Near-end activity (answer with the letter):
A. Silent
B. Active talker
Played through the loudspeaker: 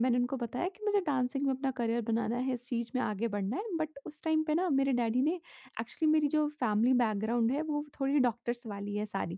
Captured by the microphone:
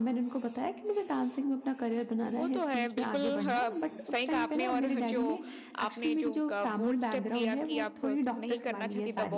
B